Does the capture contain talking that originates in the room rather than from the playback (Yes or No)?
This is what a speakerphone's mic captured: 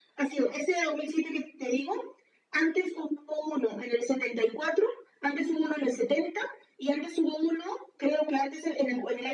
No